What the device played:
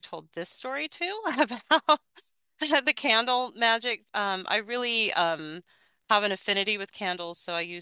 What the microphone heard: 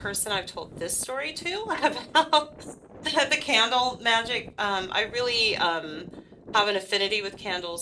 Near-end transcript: none

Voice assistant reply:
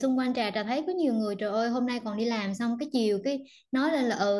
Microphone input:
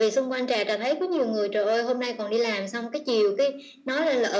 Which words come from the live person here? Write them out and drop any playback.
none

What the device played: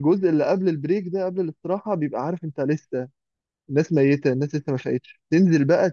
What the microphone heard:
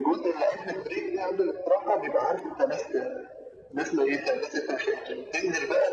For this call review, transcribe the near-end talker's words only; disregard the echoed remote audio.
none

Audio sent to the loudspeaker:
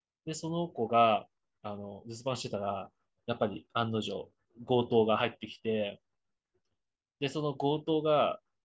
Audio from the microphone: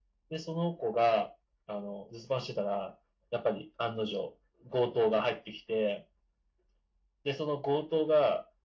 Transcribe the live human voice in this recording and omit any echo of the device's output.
none

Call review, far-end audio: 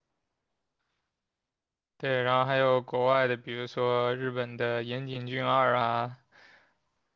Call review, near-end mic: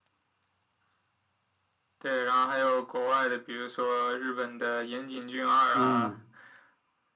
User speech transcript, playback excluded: 嗯

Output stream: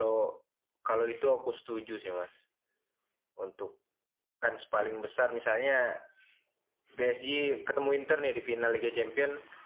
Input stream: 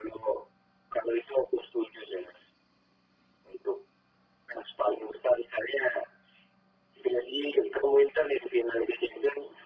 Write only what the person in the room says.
none

